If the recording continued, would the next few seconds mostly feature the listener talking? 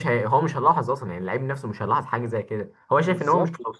Yes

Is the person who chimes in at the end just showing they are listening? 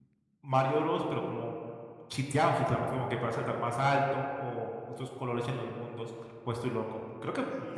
No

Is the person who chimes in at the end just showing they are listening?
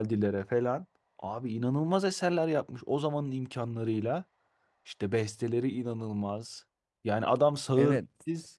Yes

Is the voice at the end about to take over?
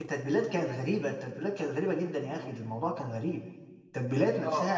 No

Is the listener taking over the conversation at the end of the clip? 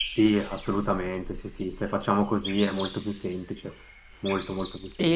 Yes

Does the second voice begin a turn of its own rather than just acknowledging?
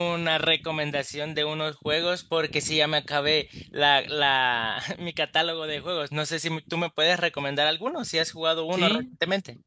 Yes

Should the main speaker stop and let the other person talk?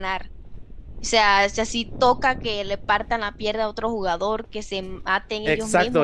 Yes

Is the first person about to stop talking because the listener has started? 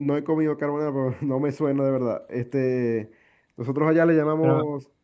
No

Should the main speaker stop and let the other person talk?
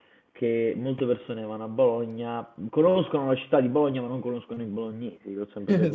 Yes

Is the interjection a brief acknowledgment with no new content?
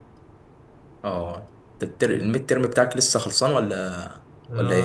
No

